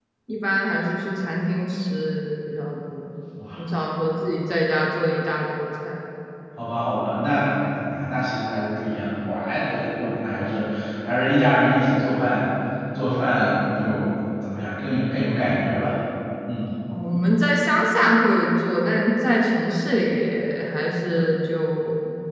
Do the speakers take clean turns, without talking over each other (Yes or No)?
Yes